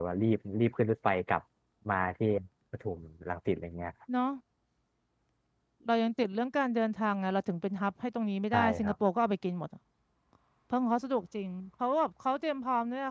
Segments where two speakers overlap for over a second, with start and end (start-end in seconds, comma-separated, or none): none